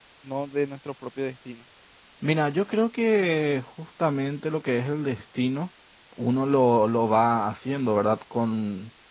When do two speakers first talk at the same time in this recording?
none

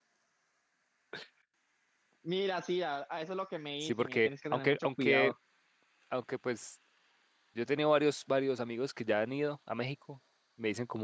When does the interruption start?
3.8 s

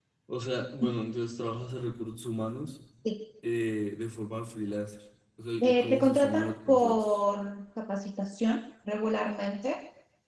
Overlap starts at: 5.6 s

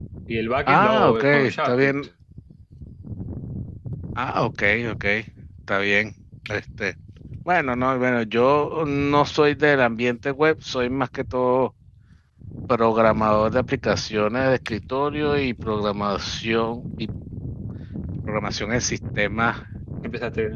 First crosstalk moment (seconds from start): 0.7 s

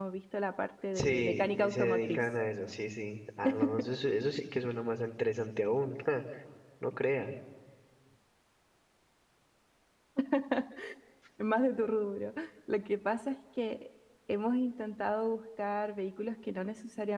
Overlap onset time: 0.9 s

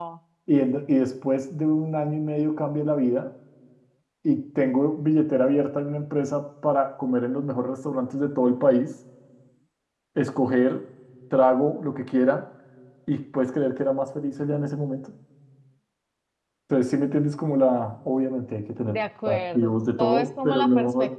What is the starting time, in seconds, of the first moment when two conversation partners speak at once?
18.9 s

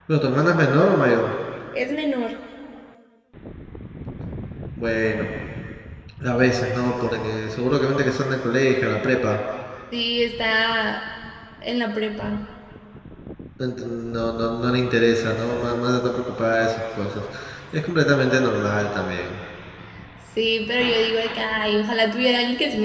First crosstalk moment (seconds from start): none

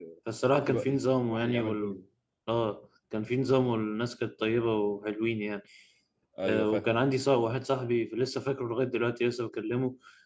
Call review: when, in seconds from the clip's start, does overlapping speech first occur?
0.7 s

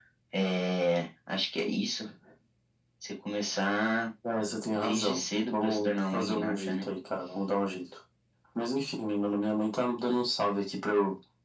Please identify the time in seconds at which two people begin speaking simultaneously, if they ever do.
4.7 s

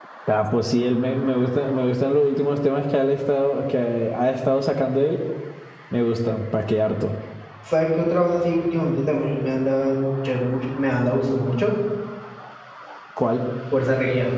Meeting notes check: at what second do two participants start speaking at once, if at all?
none

